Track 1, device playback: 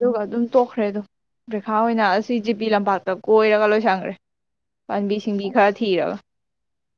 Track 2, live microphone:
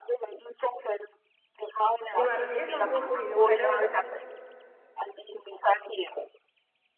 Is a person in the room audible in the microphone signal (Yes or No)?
Yes